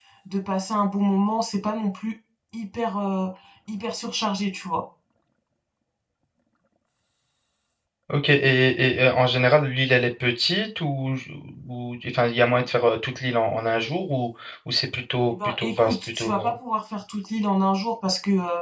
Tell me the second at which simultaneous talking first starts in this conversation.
15.3 s

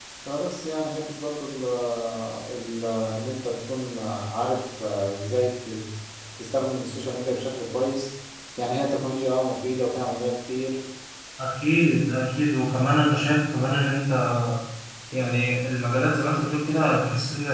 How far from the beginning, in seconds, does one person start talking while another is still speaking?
none

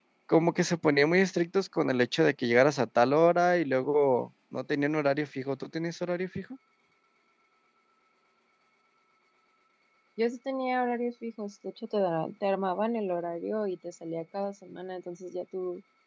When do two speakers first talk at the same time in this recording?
none

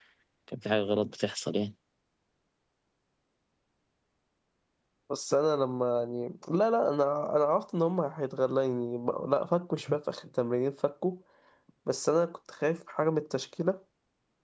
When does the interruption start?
none

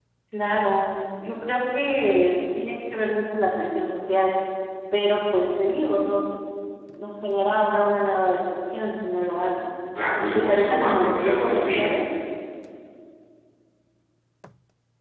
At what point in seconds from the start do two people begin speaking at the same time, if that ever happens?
10.2 s

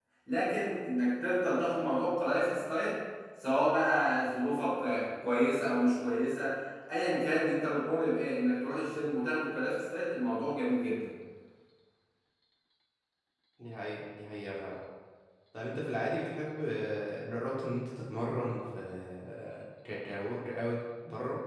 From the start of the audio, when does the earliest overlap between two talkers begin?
none

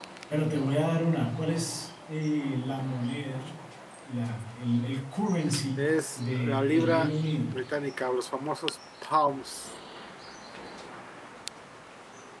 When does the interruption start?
5.8 s

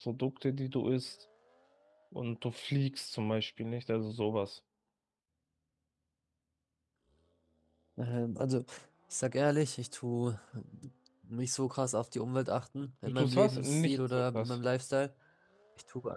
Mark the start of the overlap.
13.0 s

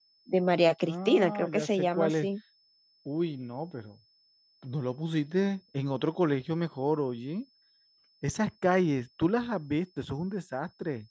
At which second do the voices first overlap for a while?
0.8 s

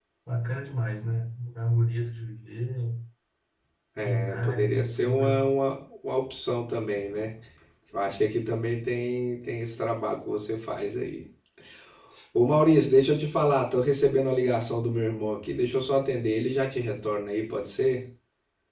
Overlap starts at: 4.0 s

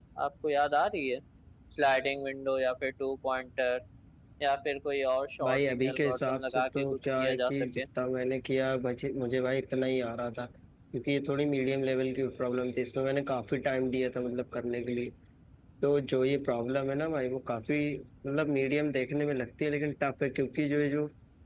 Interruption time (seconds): 5.4 s

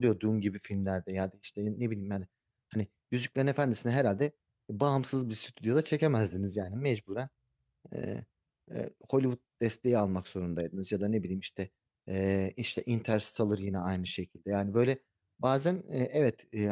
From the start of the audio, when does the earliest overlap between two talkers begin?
none

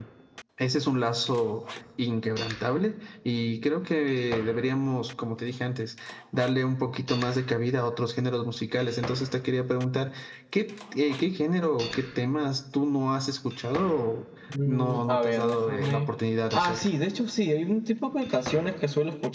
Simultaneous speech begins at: 14.7 s

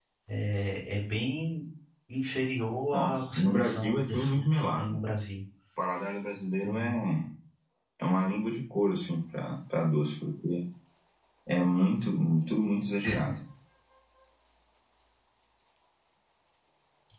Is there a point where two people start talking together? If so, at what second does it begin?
2.9 s

